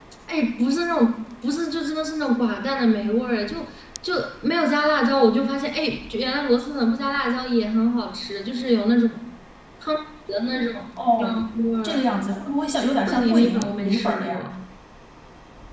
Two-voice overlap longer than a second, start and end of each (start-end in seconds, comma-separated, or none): 13.1-14.4